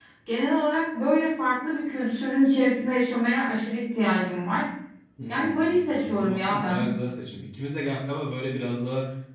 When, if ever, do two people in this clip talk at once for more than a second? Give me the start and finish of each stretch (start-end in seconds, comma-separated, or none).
5.3-6.9